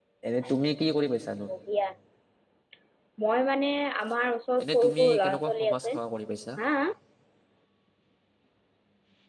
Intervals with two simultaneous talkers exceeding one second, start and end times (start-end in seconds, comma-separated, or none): 4.6-6.0